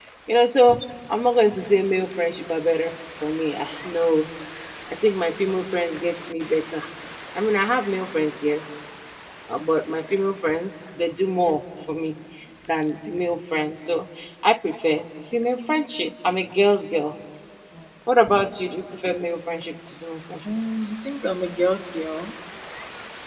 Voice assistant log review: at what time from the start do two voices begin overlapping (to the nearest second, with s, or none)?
none